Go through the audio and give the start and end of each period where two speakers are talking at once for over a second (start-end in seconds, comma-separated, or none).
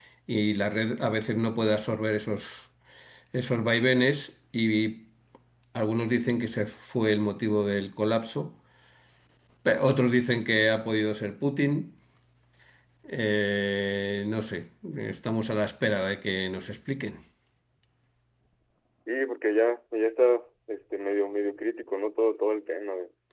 none